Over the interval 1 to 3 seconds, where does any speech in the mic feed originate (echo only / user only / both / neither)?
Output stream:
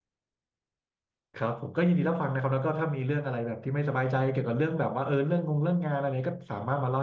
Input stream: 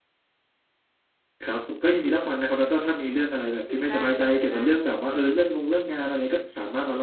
echo only